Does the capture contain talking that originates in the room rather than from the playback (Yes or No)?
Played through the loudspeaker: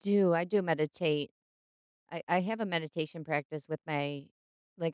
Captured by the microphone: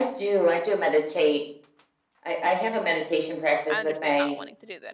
Yes